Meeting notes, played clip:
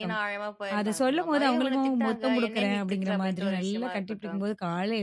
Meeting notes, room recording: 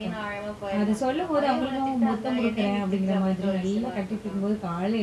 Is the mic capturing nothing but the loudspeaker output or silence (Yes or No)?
Yes